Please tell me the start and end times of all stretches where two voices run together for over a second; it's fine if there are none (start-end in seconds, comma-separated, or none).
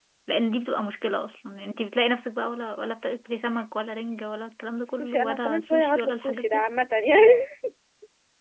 4.8-6.6